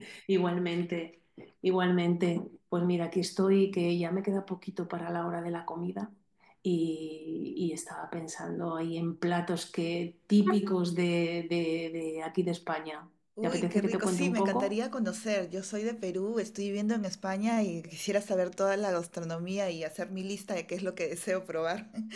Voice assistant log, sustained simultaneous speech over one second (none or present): present